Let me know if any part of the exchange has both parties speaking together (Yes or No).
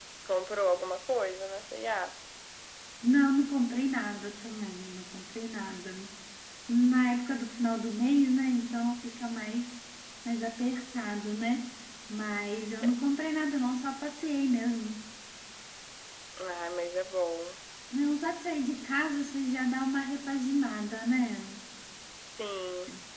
No